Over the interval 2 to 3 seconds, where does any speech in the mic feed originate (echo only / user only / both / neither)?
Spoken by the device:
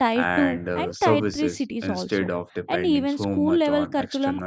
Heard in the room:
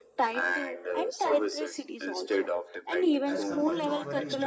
echo only